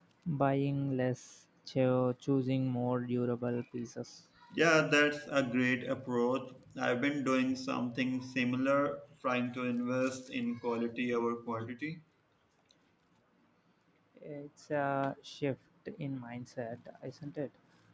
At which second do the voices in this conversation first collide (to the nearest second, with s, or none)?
none